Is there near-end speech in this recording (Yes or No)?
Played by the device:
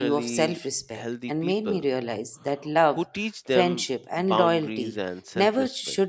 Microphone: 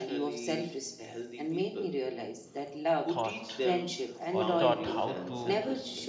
Yes